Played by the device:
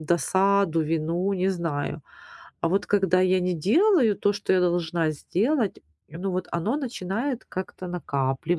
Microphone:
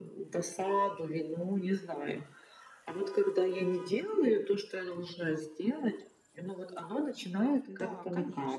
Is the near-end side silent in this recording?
No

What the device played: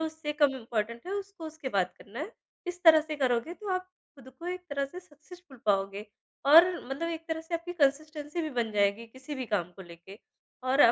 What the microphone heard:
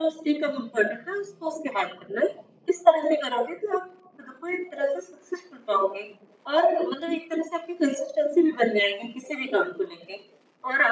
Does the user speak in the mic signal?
No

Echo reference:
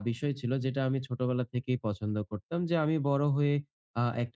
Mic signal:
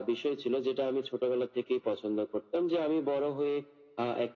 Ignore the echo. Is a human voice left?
No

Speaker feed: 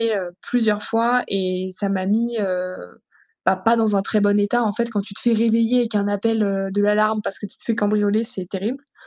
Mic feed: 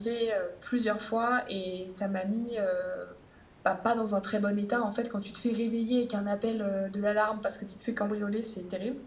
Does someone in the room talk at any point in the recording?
No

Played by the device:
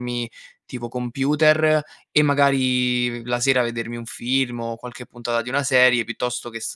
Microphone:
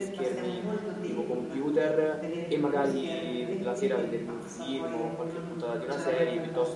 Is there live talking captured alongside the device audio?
Yes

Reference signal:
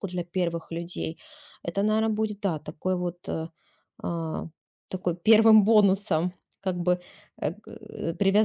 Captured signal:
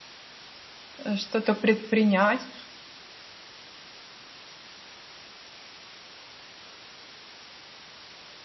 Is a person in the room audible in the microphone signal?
Yes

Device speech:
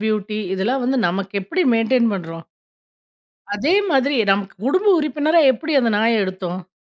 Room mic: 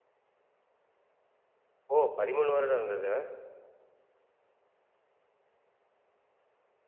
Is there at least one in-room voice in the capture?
Yes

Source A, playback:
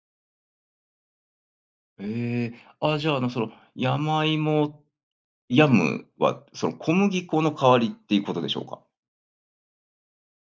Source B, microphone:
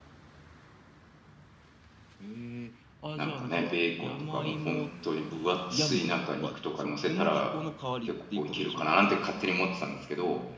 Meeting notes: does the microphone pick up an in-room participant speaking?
Yes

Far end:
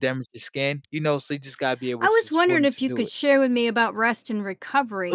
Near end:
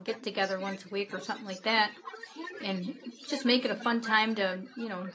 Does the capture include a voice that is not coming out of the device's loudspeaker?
Yes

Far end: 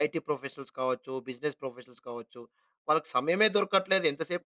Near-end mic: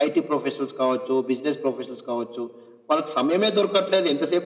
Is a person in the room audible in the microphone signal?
No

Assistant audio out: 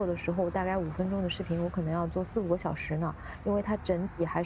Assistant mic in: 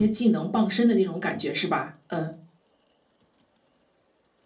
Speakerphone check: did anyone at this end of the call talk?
Yes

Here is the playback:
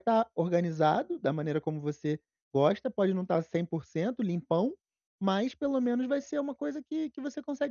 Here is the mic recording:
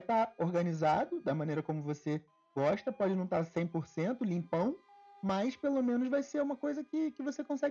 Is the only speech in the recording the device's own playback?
Yes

